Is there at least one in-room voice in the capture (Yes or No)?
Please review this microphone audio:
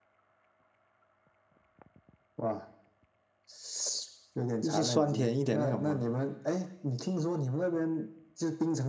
Yes